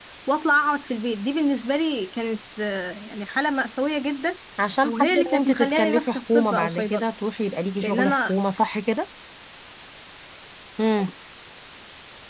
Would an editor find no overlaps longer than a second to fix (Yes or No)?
No